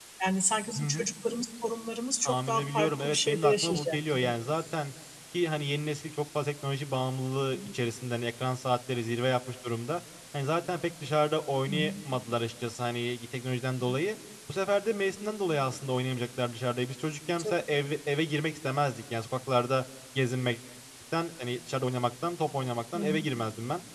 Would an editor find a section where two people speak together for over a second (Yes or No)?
Yes